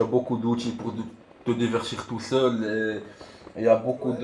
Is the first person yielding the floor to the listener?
No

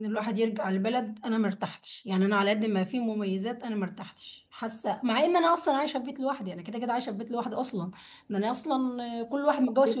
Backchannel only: Yes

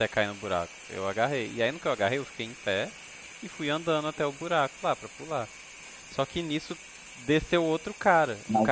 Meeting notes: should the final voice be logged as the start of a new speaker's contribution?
No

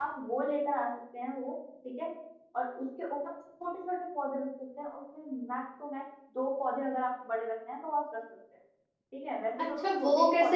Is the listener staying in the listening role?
No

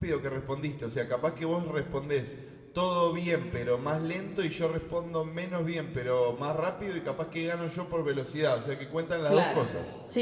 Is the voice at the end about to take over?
Yes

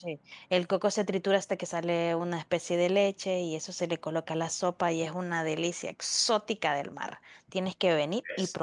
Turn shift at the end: No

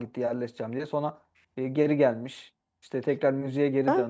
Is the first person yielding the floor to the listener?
No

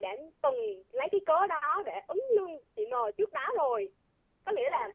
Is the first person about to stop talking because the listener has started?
No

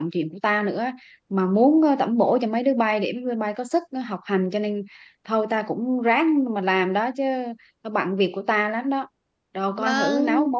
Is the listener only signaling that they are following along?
No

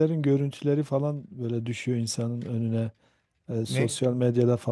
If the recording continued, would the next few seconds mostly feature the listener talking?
No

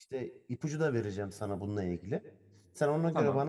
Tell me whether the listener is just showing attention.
Yes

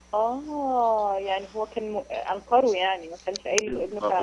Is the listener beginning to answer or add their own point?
Yes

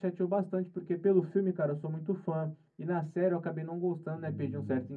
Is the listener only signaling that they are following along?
Yes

